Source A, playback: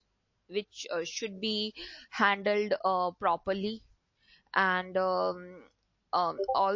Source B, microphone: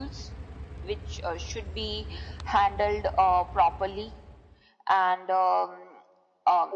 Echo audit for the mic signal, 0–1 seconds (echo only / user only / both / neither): echo only